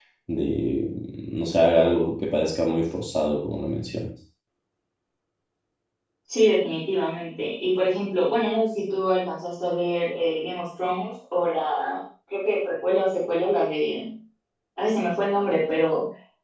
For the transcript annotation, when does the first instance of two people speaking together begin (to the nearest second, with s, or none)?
none